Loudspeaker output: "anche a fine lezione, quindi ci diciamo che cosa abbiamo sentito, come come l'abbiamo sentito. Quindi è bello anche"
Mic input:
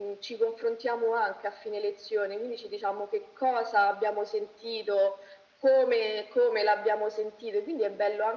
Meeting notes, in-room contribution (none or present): none